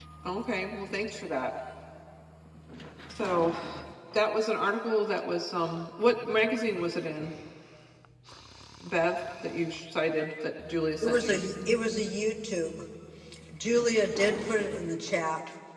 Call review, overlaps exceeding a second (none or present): none